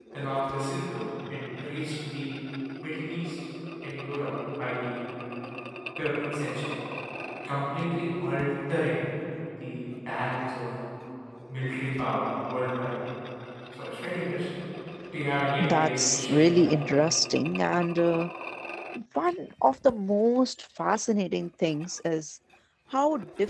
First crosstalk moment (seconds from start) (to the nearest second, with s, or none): 16 s